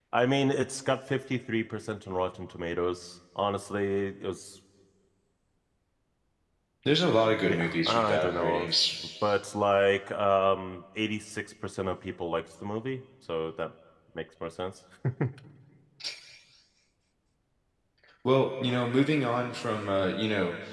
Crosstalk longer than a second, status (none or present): present